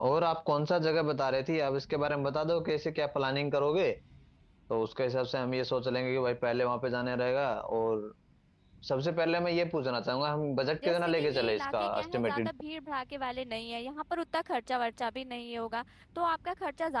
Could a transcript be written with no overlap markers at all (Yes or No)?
No